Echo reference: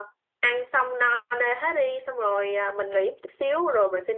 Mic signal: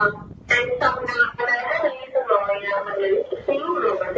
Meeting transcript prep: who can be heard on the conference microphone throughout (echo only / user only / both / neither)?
echo only